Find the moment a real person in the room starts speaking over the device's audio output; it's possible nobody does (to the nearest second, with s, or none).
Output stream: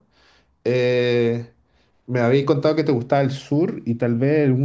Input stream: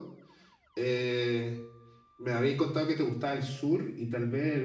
none